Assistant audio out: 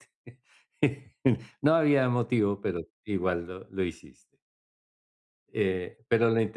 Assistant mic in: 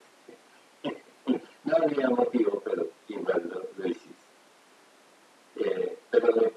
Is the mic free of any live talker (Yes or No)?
Yes